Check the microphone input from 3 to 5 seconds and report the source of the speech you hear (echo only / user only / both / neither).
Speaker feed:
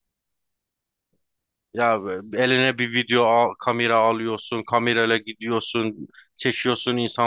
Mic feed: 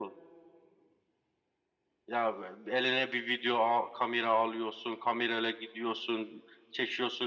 echo only